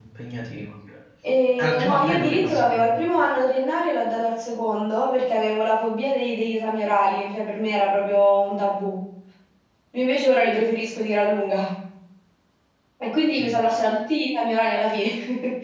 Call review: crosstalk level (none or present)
present